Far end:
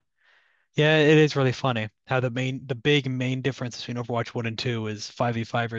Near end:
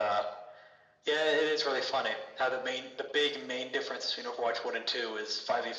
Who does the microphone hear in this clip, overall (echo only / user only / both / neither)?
echo only